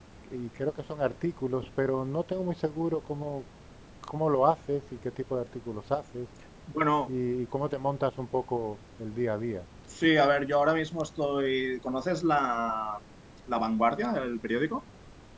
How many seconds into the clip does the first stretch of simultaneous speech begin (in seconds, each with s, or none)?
none